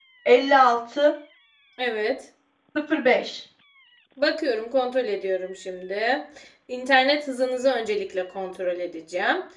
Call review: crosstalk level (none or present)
none